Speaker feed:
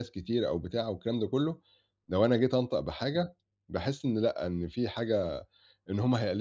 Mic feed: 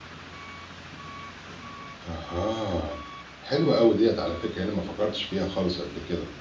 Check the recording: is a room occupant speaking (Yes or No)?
Yes